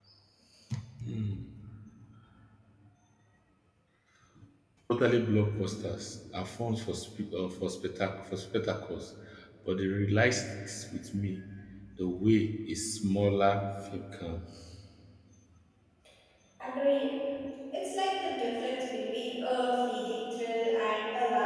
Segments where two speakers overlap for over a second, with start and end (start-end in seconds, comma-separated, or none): none